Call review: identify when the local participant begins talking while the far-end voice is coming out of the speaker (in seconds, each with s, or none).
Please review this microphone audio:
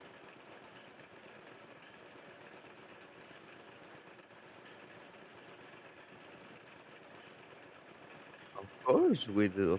8.6 s